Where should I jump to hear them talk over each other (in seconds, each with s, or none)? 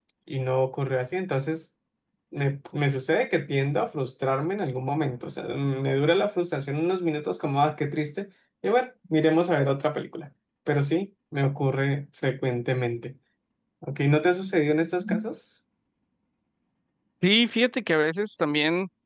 none